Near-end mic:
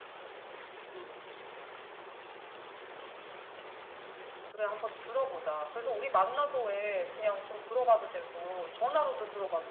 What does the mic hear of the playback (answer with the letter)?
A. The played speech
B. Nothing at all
A